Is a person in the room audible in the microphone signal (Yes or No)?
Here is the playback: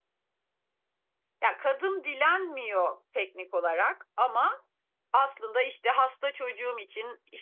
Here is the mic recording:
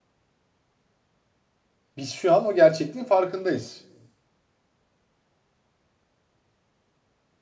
Yes